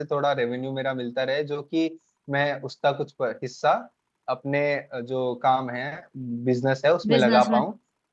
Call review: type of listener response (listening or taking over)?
listening